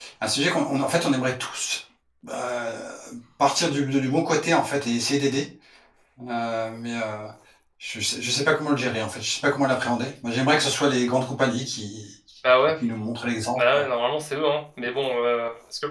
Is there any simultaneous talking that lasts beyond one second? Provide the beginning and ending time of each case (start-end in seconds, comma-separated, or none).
none